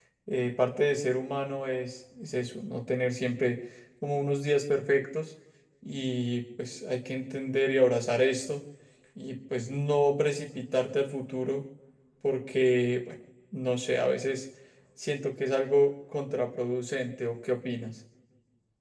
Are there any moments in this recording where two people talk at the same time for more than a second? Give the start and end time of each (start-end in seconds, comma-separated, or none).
none